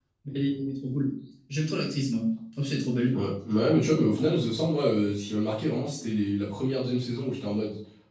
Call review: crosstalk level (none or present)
none